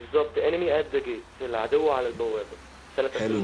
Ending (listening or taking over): taking over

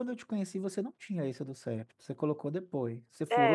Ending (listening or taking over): taking over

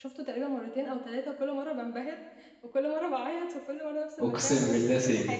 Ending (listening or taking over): taking over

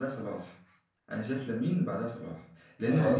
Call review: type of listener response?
listening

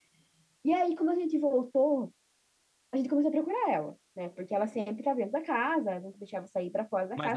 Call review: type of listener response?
taking over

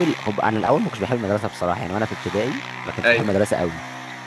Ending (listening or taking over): listening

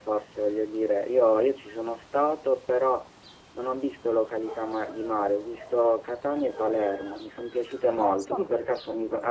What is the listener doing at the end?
listening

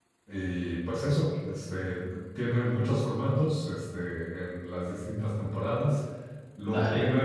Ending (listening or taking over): listening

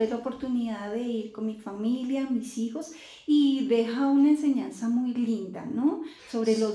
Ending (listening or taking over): listening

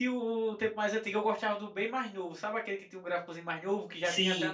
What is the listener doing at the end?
listening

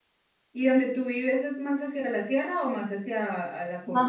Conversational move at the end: taking over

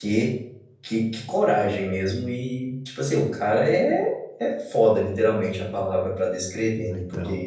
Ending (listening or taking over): listening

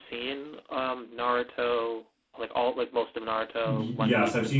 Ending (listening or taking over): taking over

